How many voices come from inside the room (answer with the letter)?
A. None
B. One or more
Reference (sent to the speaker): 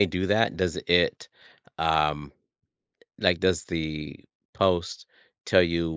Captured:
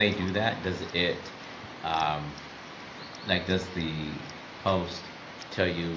A